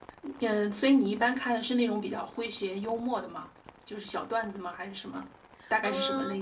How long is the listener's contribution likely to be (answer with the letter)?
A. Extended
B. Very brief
A